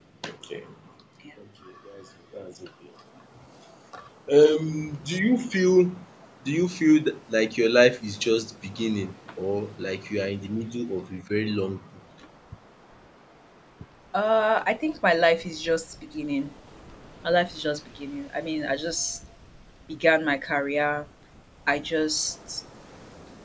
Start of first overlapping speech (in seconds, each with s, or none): none